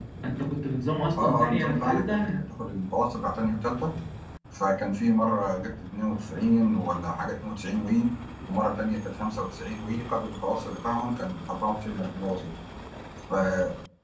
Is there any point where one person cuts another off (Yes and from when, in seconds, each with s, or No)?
Yes, from 1.2 s